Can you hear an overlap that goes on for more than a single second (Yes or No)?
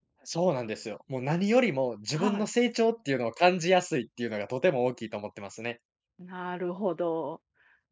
No